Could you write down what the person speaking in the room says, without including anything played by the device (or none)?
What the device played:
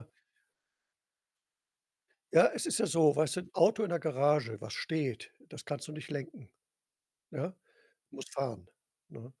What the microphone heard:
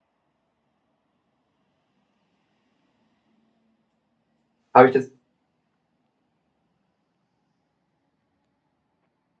Habe ich das